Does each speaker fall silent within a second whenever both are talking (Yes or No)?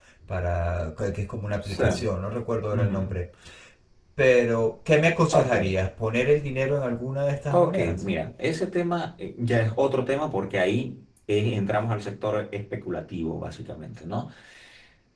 Yes